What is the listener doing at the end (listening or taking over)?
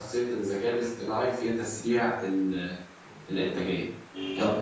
taking over